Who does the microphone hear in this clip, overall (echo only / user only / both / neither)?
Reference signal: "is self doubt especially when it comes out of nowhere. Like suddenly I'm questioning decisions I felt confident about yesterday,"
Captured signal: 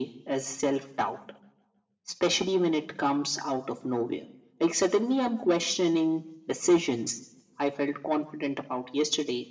echo only